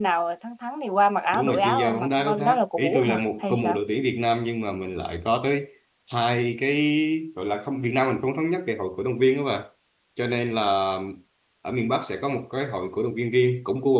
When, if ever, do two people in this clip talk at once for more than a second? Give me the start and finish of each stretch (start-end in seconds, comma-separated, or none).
1.3-3.8